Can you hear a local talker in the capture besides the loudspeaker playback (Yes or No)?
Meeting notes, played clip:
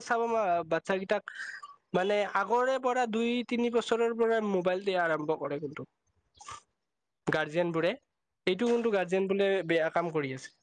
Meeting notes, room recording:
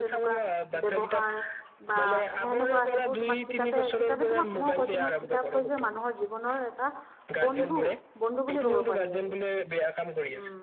Yes